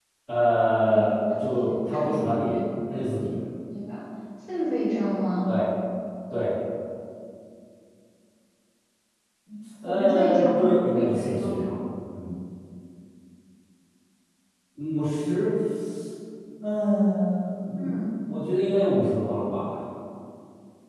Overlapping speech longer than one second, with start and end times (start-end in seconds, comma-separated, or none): 0.9-2.6, 9.8-11.5